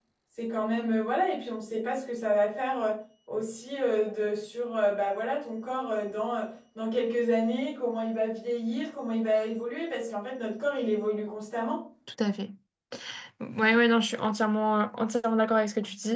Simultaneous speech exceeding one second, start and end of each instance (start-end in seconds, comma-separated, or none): none